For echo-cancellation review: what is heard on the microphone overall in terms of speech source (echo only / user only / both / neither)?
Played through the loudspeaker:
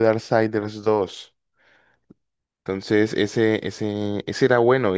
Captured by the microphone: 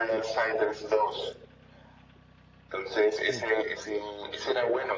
both